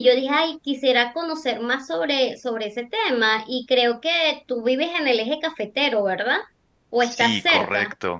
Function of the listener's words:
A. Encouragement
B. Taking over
B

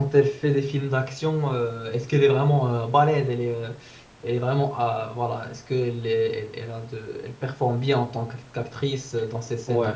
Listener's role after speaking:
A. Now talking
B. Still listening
A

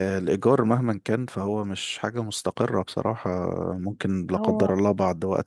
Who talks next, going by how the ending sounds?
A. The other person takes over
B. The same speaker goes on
B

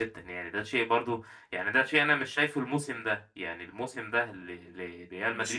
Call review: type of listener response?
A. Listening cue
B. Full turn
A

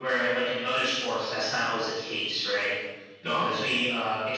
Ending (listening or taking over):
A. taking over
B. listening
B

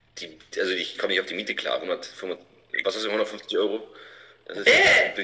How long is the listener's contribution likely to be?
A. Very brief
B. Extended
B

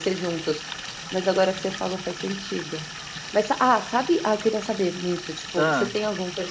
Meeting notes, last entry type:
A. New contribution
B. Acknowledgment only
B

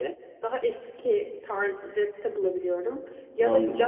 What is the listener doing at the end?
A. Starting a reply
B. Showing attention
B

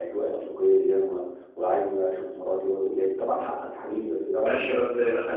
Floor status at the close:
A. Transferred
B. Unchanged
A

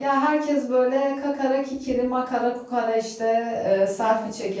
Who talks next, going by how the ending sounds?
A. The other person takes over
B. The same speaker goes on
B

